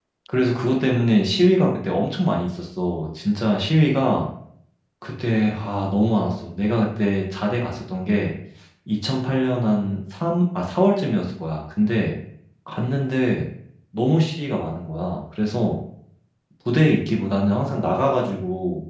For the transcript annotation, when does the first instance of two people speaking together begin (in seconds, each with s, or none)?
none